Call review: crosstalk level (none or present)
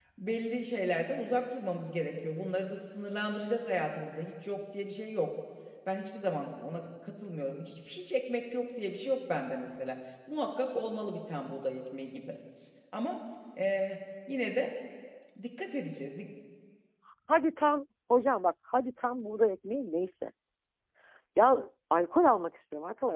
none